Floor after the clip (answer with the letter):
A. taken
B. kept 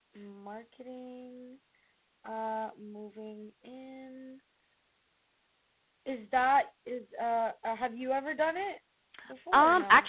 A